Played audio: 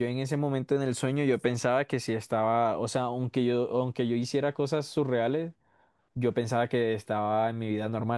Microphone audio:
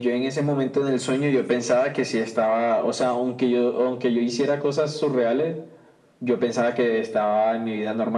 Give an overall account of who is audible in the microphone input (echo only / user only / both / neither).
echo only